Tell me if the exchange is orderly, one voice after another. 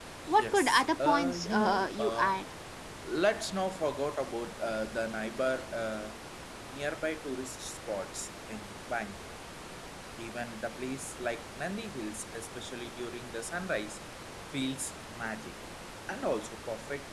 No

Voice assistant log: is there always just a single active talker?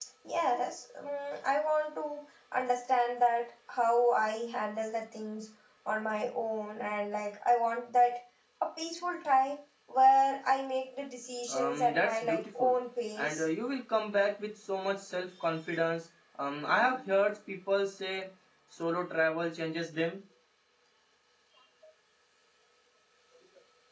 No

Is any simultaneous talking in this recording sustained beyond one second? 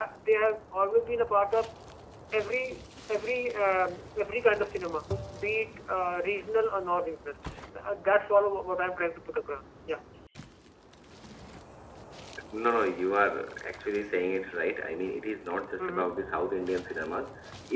No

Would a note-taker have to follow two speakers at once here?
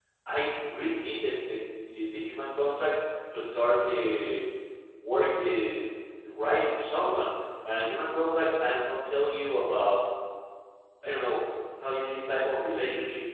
No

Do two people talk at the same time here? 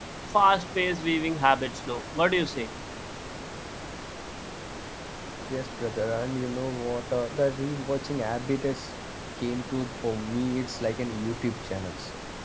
No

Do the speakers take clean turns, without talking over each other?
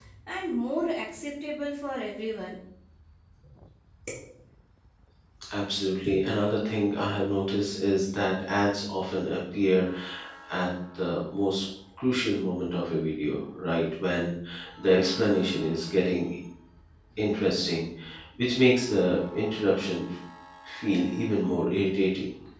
Yes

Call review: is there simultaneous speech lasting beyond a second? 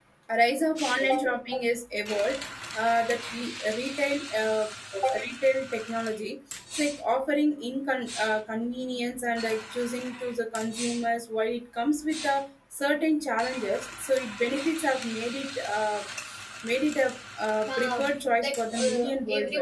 Yes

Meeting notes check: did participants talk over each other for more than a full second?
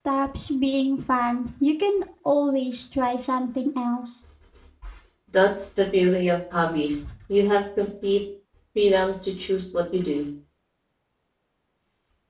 No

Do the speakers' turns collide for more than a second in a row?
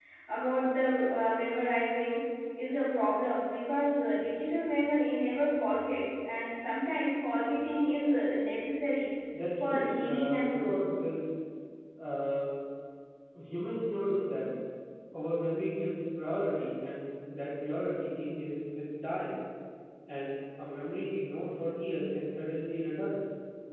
Yes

